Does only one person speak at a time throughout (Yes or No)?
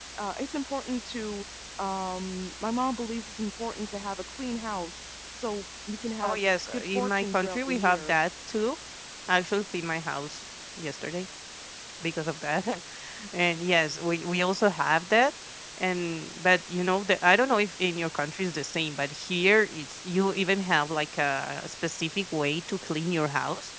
No